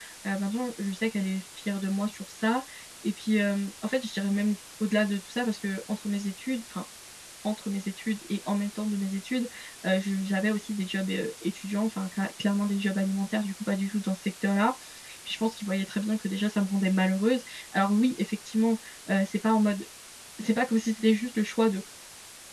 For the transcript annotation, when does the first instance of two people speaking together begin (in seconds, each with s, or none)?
none